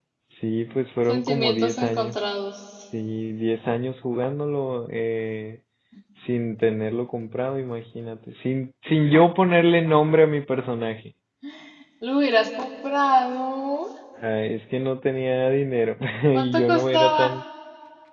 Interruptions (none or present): present